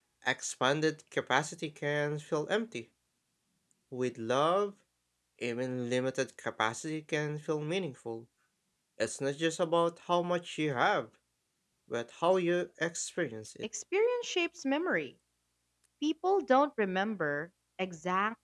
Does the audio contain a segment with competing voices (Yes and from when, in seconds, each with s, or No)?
No